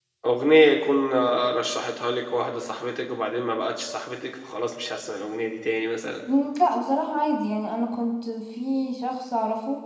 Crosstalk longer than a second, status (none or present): none